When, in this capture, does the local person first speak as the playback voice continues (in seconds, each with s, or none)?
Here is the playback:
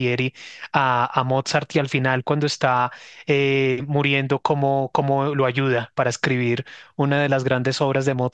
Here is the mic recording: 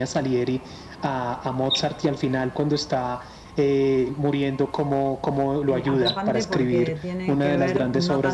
5.7 s